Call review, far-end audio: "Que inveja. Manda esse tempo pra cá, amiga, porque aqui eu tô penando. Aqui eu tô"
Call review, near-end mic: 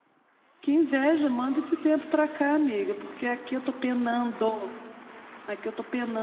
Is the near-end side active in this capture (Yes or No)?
No